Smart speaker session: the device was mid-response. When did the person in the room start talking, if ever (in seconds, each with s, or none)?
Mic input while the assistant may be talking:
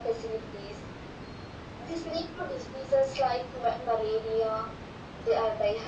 none